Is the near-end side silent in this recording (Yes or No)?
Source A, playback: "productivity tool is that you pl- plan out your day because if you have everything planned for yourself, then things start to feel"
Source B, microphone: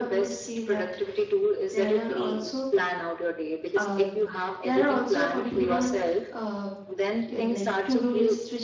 No